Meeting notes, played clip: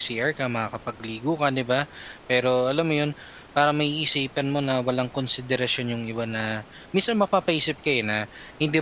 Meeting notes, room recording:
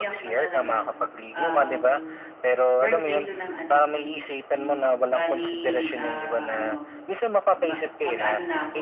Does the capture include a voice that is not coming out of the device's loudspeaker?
Yes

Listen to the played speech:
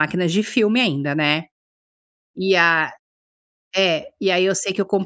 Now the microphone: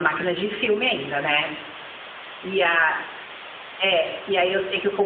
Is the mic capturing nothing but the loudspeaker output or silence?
Yes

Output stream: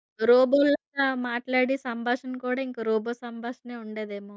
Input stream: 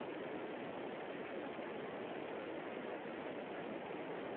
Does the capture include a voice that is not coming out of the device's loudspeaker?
No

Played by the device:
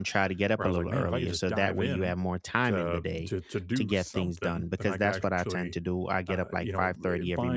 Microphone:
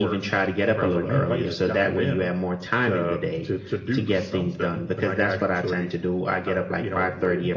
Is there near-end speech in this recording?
No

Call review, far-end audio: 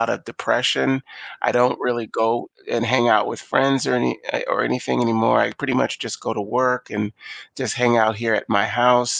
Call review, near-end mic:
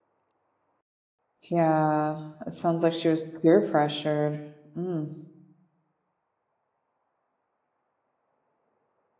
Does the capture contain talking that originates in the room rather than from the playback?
Yes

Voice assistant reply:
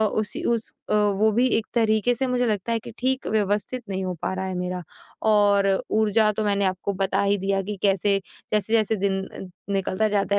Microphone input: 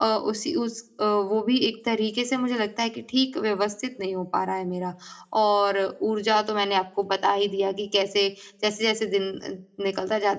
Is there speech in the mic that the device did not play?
No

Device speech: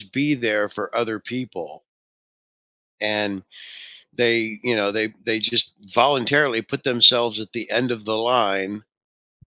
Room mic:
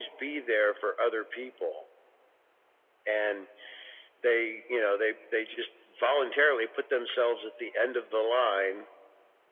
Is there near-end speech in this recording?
No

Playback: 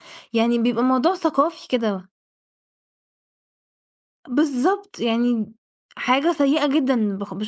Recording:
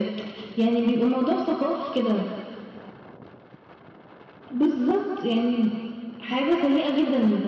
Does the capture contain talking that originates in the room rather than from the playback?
No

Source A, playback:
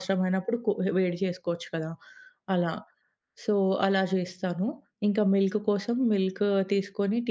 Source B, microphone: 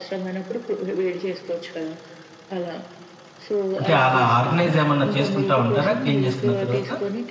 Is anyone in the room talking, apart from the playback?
Yes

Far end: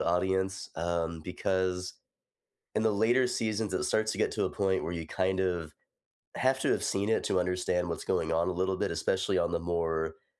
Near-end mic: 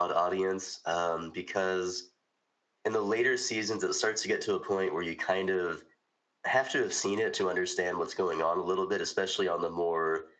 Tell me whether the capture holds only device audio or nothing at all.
Yes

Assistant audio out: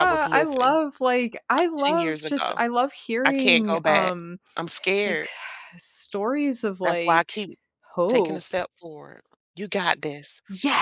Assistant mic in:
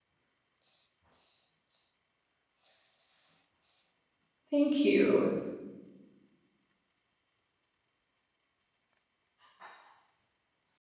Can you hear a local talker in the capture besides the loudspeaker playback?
Yes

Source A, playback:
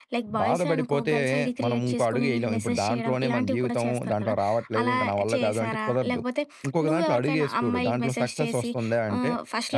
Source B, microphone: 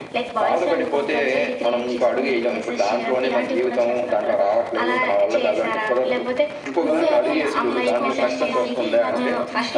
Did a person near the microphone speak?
Yes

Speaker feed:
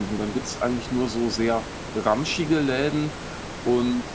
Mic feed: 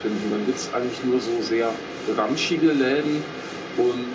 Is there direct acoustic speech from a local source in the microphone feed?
No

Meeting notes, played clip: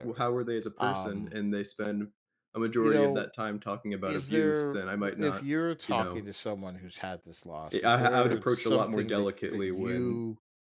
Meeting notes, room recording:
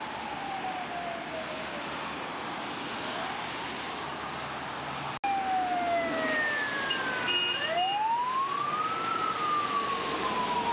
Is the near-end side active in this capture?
No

